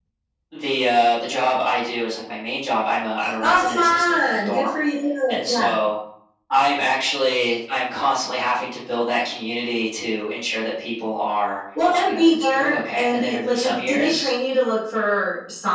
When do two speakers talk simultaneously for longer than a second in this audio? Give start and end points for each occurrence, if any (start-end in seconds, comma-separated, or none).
3.4-4.6, 12.1-14.3